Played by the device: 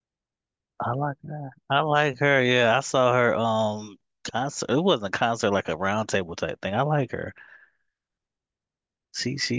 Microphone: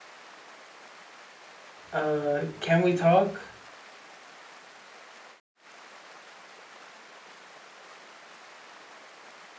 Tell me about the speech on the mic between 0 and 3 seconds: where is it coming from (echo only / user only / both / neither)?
user only